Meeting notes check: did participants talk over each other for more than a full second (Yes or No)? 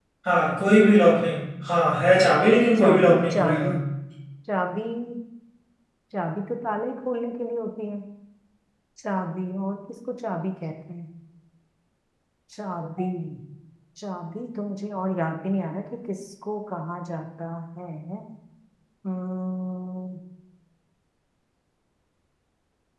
Yes